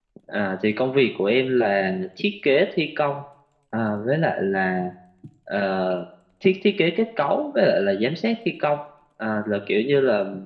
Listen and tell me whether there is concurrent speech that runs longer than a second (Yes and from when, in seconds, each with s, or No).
No